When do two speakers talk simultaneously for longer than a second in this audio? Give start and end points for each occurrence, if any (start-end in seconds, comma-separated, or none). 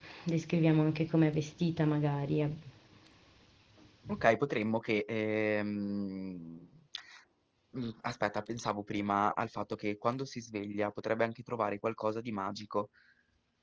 none